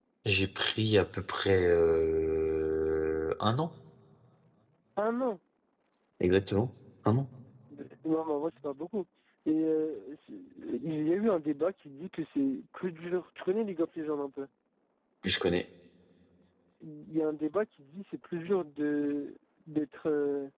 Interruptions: none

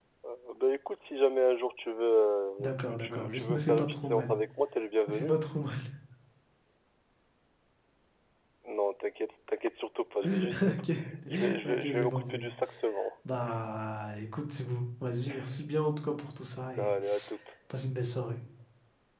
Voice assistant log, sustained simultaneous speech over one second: present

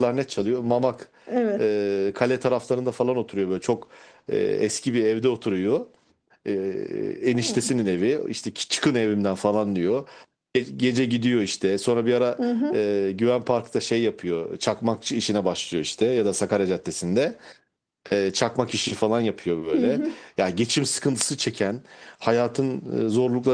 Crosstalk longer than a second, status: none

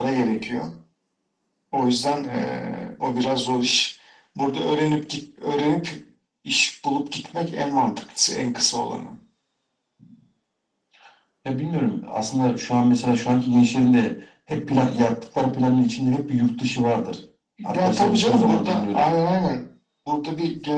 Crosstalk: present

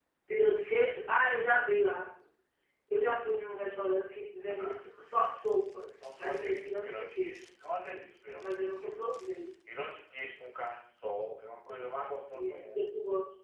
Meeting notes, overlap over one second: present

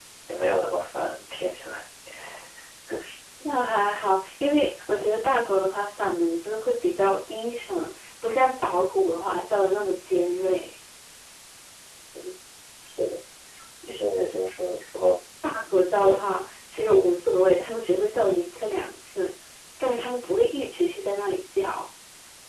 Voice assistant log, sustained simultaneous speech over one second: none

